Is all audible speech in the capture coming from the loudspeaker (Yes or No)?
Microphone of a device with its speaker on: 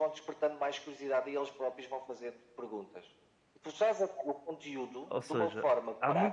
No